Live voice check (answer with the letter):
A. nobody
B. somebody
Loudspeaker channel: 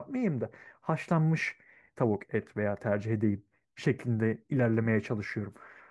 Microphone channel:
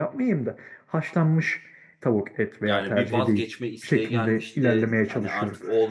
B